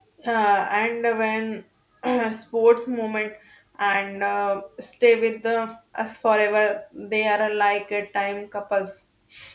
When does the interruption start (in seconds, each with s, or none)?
none